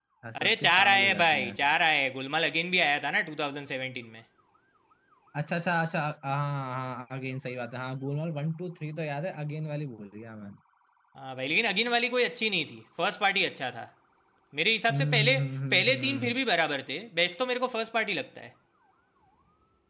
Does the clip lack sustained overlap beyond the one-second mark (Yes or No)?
No